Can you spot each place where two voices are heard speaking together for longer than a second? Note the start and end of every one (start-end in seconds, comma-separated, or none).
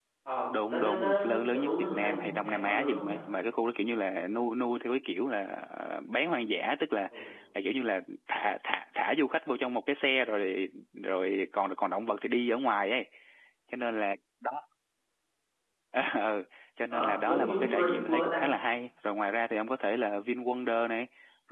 0.7-3.2, 16.9-18.4